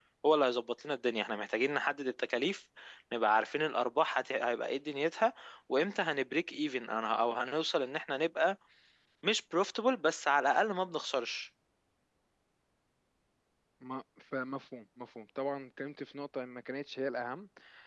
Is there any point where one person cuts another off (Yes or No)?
No